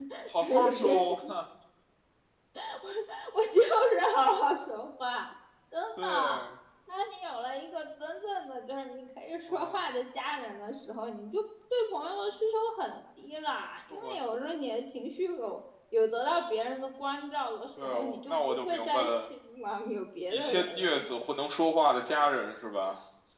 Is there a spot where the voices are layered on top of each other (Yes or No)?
Yes